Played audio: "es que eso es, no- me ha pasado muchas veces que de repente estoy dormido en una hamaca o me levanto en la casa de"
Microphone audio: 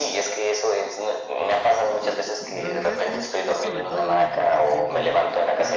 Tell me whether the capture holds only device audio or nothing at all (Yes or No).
No